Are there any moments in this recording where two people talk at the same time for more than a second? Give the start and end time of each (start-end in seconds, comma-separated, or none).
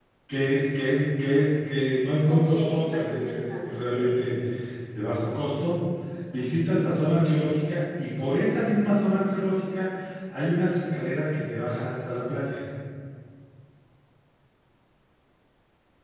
2.3-4.3